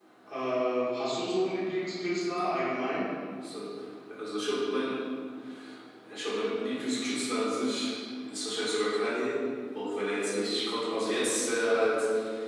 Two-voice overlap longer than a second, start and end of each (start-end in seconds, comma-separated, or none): none